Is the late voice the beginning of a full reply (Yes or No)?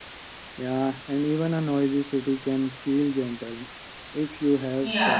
Yes